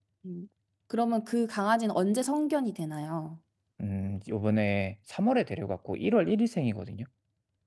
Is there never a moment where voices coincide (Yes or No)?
Yes